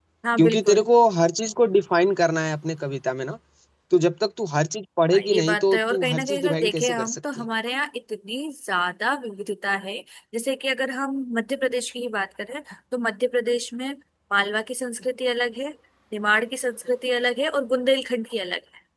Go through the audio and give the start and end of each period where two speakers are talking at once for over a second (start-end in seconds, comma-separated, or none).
5.1-7.5